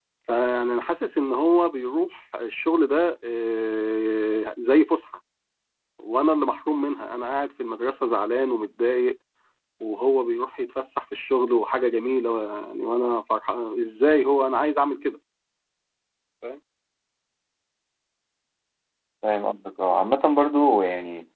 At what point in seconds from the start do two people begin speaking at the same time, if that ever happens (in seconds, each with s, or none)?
none